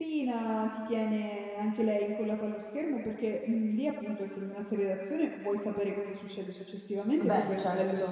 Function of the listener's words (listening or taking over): listening